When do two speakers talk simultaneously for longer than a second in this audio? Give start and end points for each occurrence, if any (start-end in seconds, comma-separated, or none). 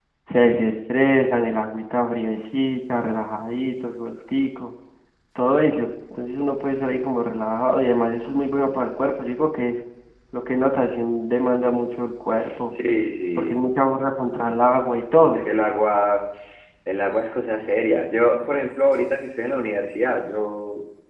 none